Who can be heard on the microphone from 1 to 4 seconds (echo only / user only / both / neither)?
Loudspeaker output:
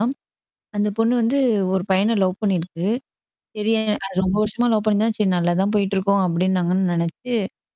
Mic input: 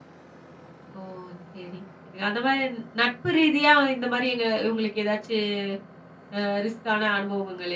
user only